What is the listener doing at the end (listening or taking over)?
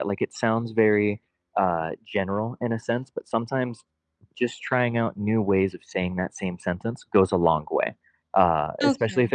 taking over